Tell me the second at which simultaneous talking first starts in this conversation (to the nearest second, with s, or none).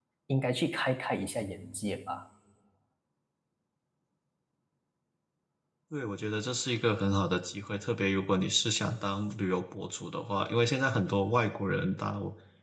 none